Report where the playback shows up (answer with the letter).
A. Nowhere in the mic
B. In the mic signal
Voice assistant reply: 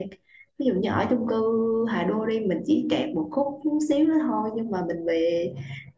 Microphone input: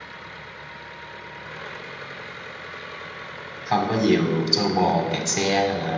A